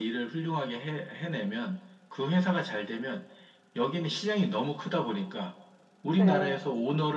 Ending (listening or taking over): listening